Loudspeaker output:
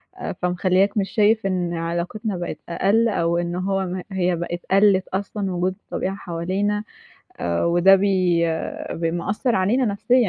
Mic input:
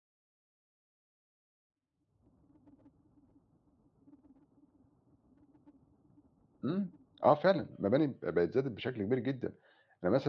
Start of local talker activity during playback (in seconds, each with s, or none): 6.6 s